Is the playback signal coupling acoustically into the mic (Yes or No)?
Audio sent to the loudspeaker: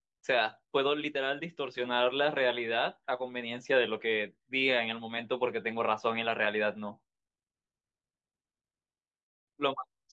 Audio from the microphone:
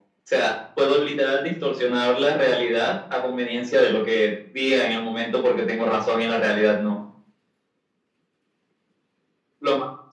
Yes